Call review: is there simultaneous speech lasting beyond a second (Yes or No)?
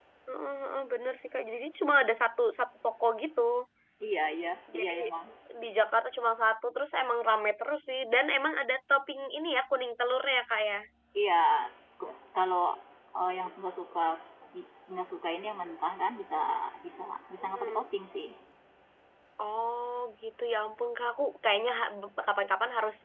No